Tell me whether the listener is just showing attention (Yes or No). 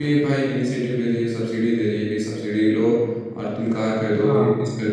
Yes